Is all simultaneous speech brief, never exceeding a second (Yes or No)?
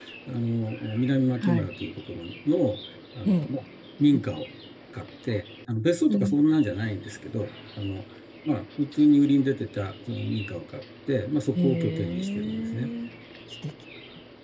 No